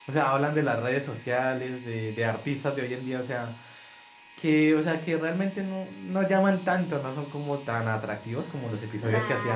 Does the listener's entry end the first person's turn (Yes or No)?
Yes